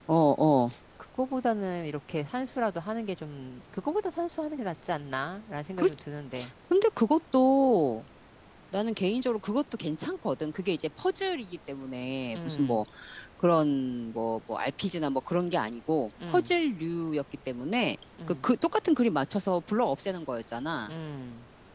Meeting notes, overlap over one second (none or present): none